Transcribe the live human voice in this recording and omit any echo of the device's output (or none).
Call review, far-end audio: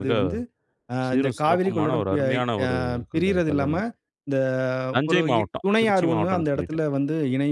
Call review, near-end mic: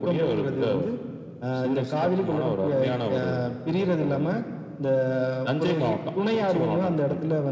none